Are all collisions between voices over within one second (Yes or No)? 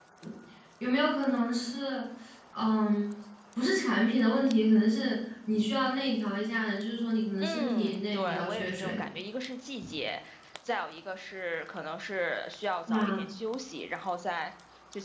No